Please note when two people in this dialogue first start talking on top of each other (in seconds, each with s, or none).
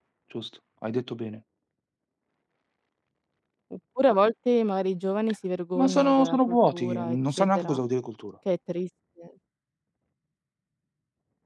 5.8 s